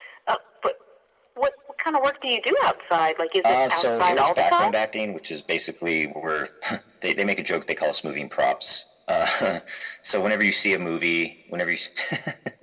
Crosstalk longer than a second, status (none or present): present